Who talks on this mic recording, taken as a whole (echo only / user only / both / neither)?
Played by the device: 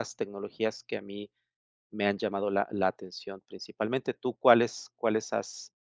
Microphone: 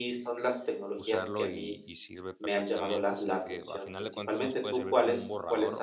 both